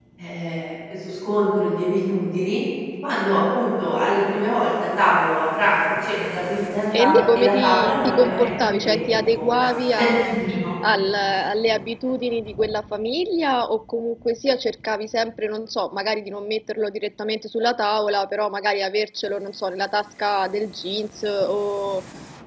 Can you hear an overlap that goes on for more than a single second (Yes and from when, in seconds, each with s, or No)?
Yes, from 6.9 s